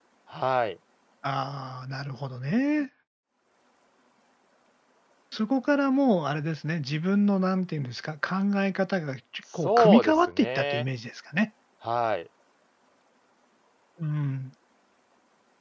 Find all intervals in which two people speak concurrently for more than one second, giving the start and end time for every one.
9.5-10.8

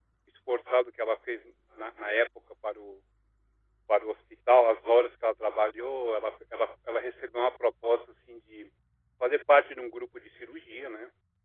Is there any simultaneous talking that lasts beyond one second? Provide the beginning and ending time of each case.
none

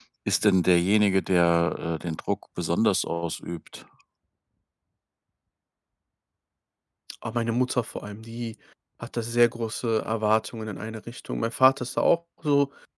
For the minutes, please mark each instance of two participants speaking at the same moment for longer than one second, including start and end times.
none

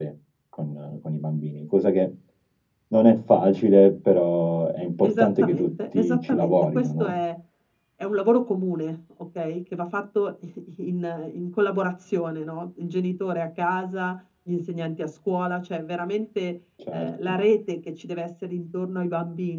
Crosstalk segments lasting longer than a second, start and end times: 5.0-7.1

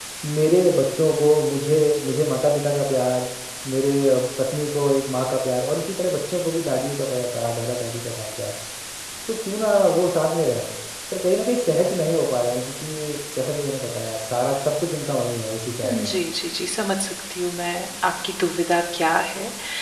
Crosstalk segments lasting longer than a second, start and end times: none

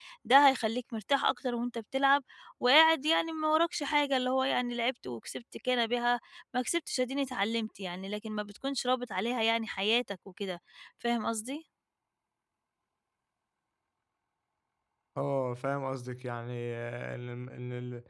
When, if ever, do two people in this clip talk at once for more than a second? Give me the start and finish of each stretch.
none

